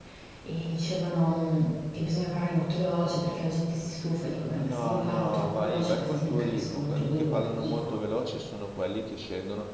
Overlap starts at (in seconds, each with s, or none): 4.5 s